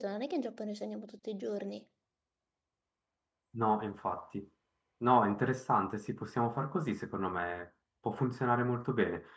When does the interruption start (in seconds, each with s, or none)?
none